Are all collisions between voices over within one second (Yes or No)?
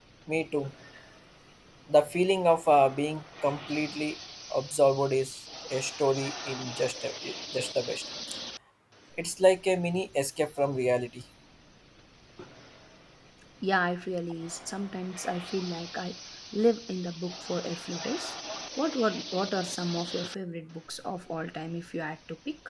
Yes